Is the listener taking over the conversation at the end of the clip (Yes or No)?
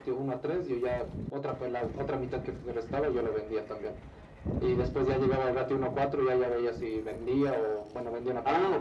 Yes